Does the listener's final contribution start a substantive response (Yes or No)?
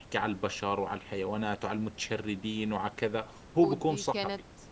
Yes